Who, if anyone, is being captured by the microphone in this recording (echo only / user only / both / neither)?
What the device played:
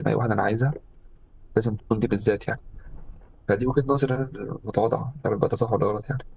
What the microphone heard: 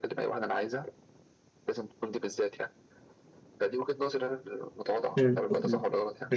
both